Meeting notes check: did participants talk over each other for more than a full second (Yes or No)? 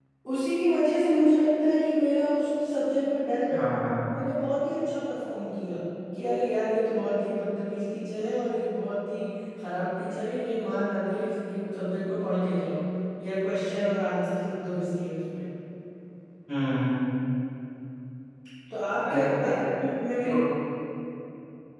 No